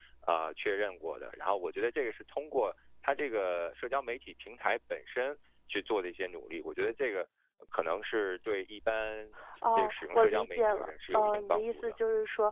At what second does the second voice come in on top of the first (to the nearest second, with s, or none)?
10 s